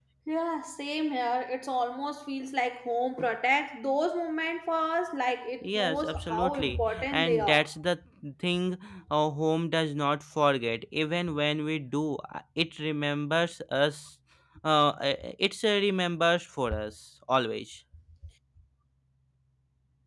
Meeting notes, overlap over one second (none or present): present